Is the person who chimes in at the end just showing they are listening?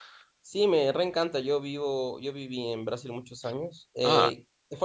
Yes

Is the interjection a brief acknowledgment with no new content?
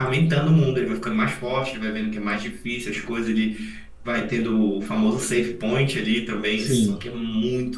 Yes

